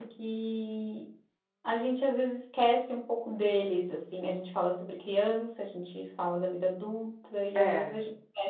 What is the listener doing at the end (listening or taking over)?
listening